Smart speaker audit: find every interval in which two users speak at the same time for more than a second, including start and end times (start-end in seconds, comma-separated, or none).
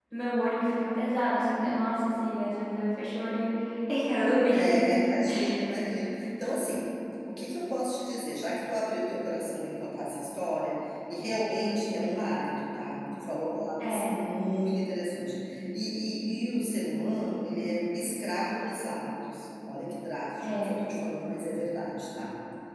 none